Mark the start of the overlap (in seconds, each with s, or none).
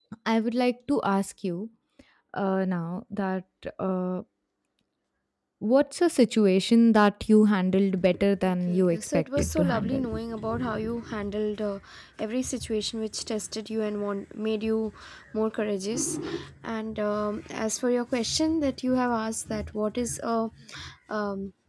8.7 s